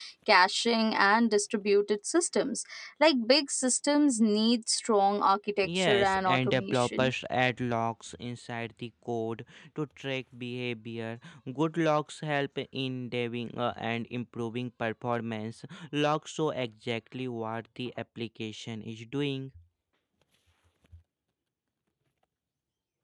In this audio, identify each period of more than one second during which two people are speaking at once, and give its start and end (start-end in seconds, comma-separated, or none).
5.6-7.1